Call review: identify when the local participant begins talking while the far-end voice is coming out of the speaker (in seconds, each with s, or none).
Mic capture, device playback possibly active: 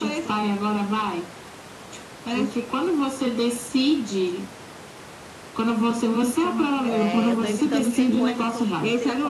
6.9 s